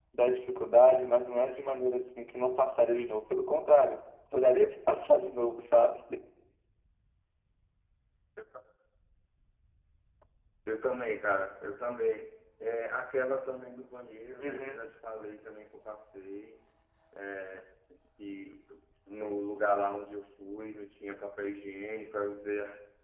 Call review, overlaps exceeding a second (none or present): none